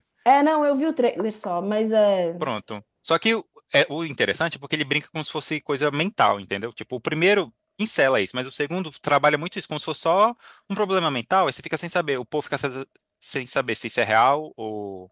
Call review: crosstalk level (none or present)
none